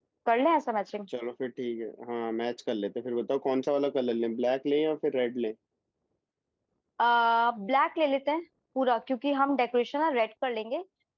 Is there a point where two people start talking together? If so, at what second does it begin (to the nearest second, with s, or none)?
none